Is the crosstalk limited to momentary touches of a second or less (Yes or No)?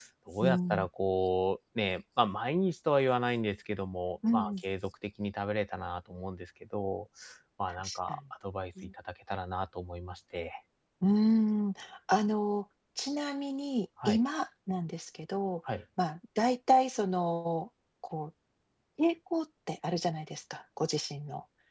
Yes